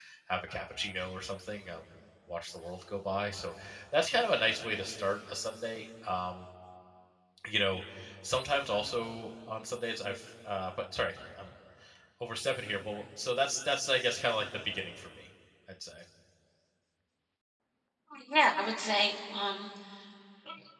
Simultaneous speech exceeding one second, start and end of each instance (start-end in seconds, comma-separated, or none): none